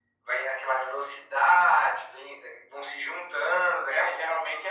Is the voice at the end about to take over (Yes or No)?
Yes